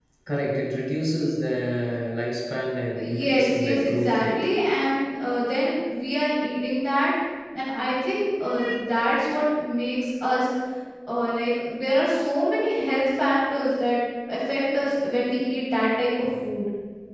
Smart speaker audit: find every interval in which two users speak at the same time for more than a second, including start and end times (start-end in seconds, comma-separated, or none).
3.0-4.4